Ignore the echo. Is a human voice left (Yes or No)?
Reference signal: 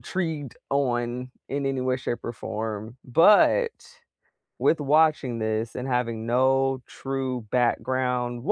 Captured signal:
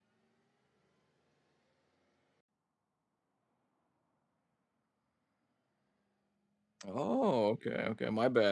Yes